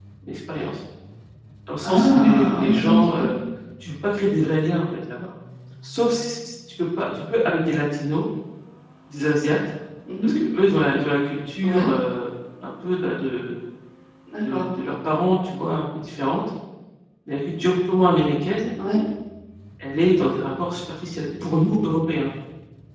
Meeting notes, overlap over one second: present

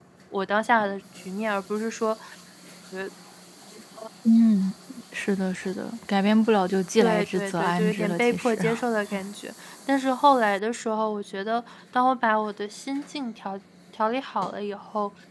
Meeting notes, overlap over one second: present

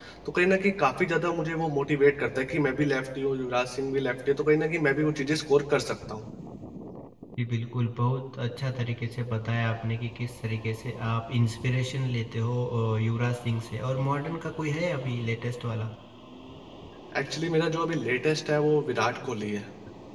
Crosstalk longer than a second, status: none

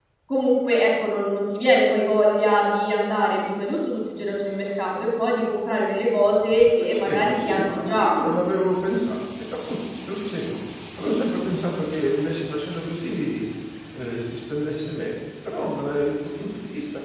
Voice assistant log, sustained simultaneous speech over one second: present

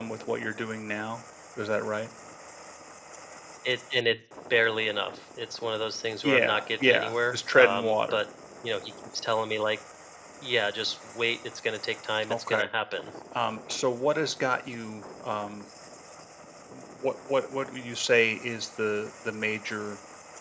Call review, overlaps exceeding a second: present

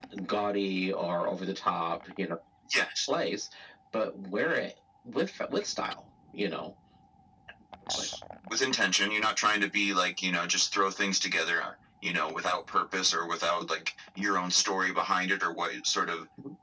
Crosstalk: none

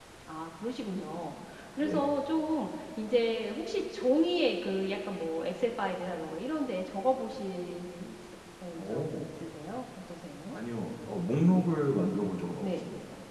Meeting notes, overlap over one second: none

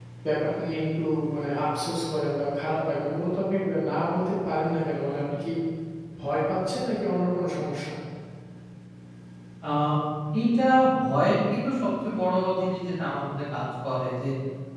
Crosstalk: none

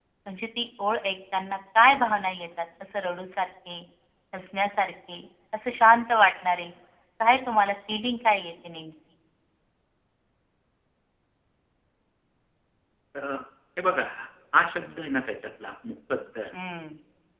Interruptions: none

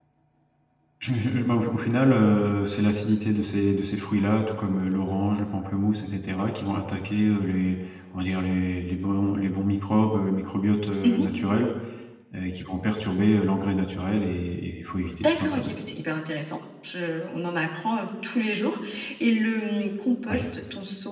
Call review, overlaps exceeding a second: none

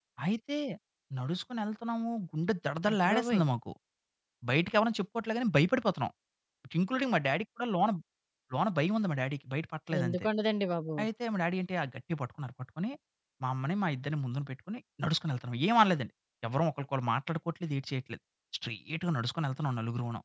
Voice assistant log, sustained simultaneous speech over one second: none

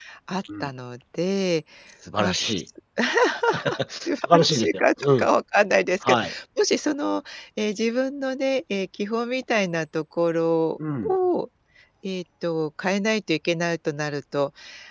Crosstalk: present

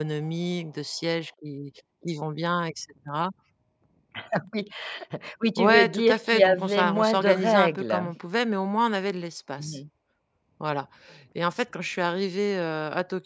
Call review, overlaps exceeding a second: present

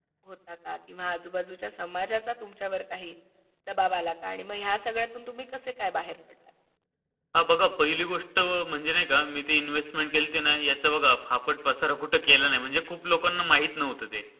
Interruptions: none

